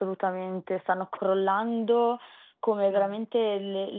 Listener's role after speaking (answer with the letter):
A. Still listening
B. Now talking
A